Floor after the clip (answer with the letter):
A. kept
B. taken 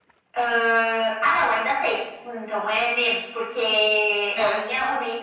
A